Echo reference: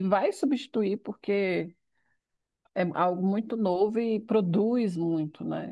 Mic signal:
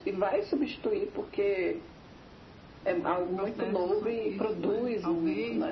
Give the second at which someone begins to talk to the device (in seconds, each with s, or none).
2.8 s